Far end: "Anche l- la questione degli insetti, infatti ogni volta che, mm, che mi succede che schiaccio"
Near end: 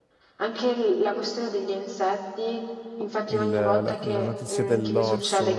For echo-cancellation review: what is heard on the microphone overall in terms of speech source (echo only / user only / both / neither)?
both